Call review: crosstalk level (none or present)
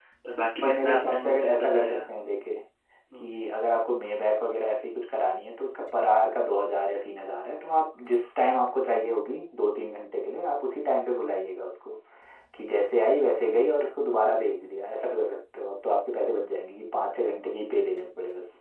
present